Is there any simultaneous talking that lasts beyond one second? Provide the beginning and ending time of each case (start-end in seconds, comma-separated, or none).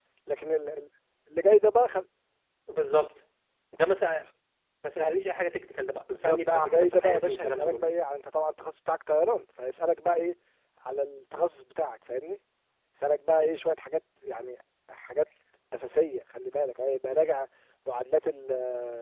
6.2-7.8